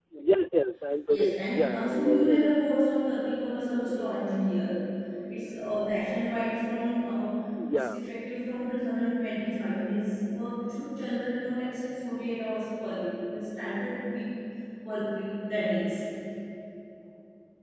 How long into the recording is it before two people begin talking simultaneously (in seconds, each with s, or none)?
1.1 s